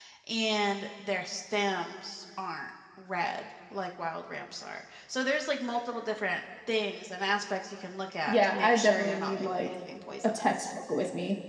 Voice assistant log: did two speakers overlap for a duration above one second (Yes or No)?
Yes